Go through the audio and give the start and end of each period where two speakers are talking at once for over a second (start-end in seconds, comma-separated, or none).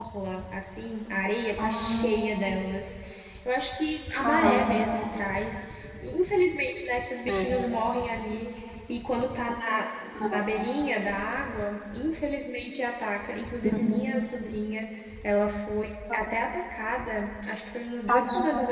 none